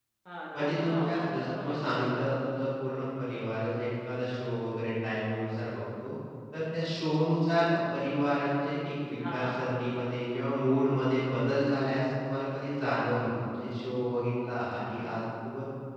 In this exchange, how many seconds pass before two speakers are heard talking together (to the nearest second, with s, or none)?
1 s